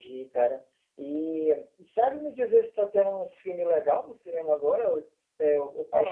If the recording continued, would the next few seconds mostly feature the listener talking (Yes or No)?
Yes